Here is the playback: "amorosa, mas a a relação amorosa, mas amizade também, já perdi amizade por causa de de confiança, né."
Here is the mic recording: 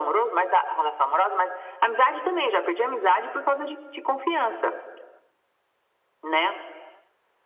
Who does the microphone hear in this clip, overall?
echo only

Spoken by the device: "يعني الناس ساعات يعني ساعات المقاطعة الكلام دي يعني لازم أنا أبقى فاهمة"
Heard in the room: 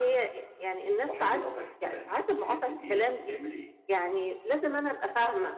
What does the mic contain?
both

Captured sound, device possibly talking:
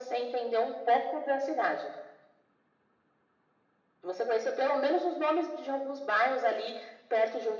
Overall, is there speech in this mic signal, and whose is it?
echo only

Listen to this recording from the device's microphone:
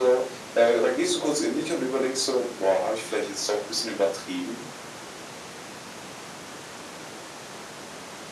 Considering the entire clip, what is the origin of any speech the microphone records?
echo only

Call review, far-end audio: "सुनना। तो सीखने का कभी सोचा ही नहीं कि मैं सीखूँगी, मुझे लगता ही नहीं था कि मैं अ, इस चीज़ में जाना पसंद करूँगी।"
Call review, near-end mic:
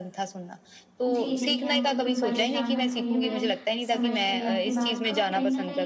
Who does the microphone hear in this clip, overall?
both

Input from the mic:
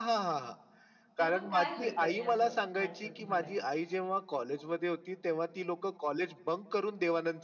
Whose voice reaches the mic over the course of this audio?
both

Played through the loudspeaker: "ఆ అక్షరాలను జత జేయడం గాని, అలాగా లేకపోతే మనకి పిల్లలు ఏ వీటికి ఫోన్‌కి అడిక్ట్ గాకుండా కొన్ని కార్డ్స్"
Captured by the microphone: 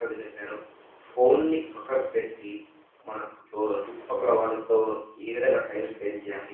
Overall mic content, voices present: user only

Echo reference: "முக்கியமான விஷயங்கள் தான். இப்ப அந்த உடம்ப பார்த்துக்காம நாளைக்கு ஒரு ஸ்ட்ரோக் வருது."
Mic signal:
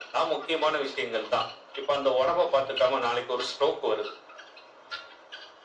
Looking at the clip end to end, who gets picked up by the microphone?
echo only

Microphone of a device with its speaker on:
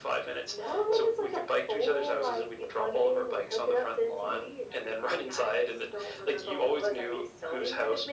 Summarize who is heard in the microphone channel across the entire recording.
echo only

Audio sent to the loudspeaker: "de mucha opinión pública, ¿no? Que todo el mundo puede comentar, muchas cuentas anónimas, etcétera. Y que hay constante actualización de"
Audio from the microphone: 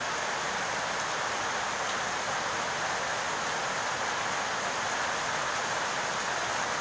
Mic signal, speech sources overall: neither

